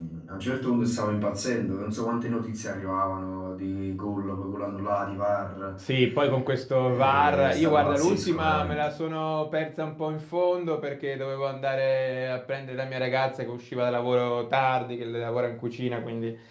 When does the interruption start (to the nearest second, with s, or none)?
7 s